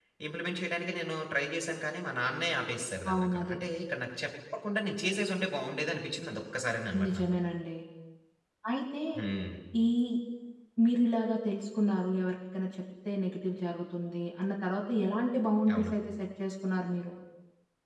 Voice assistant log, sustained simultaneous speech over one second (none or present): none